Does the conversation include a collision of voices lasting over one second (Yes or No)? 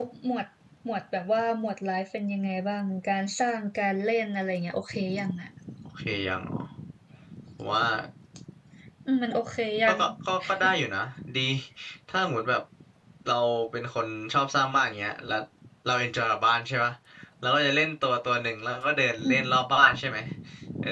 No